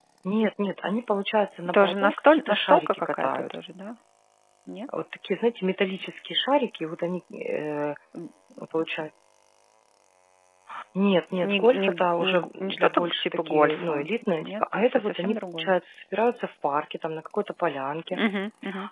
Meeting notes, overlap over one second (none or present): present